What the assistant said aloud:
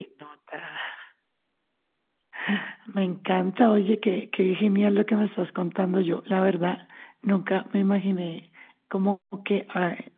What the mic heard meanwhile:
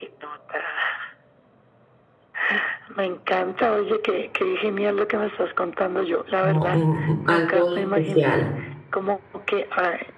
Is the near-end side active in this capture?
Yes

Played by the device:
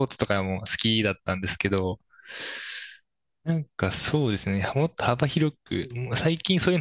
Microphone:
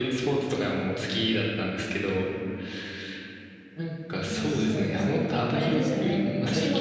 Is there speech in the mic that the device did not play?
Yes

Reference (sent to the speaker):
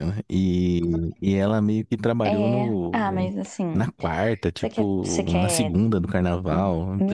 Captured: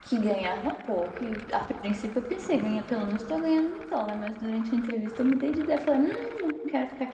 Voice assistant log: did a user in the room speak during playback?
Yes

